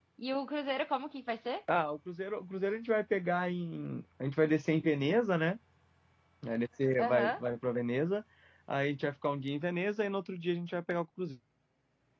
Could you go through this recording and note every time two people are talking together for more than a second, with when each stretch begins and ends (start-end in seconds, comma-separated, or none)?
none